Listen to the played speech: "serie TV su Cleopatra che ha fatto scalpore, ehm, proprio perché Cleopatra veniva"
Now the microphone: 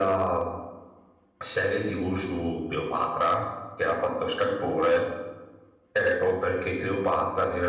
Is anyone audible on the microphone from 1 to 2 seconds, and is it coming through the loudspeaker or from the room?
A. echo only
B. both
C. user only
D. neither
A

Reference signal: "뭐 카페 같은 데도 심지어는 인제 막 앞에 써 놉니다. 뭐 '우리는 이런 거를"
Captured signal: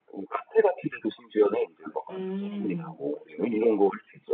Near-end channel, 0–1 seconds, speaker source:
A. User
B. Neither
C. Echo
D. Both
C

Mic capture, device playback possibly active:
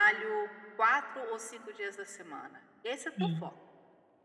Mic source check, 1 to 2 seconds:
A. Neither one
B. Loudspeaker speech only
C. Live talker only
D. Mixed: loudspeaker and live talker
B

